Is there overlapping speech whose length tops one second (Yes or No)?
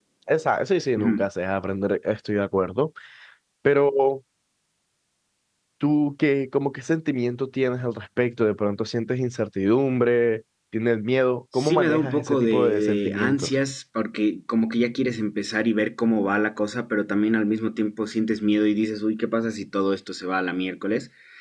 Yes